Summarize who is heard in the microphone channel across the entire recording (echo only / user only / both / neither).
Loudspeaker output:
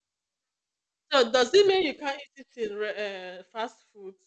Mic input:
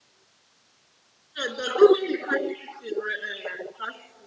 echo only